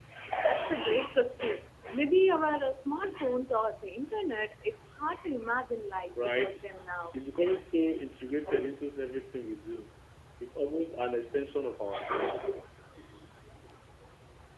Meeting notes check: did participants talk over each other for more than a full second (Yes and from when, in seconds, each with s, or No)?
No